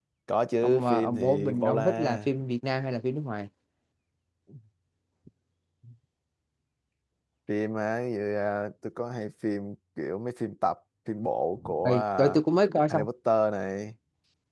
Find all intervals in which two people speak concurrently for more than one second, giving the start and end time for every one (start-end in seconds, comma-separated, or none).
0.6-2.3